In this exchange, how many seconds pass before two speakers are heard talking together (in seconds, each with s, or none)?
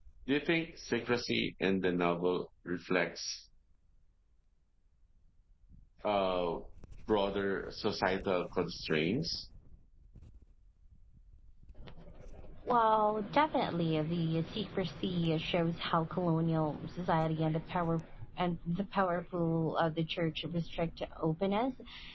none